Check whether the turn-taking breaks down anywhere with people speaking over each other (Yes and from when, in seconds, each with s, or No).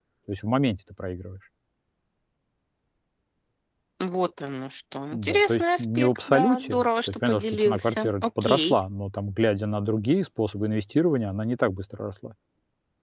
Yes, from 5.1 s